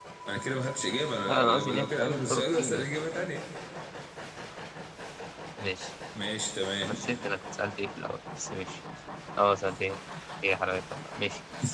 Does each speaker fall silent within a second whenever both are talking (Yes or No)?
No